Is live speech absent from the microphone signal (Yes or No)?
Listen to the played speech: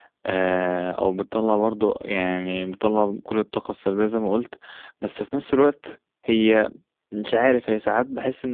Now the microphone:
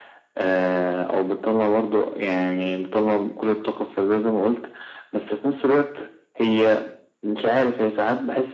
Yes